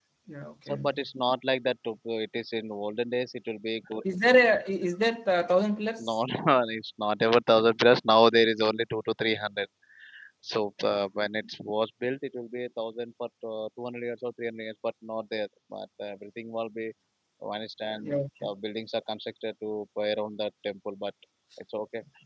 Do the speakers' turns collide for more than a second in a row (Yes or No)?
No